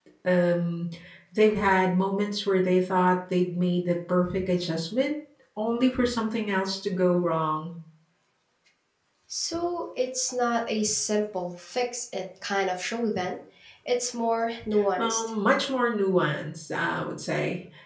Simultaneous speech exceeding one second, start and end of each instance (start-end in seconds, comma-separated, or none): none